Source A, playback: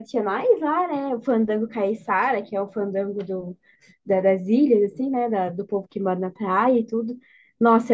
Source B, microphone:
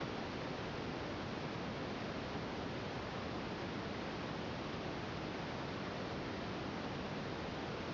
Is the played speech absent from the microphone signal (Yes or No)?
Yes